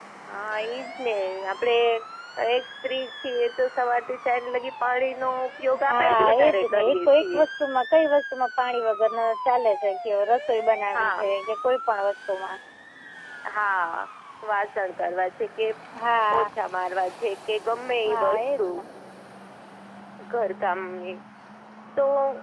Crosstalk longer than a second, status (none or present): present